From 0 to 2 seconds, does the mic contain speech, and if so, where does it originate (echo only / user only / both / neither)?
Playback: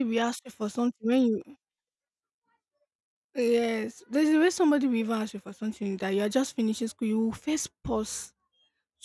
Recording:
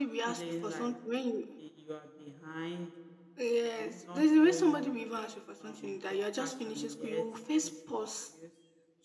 both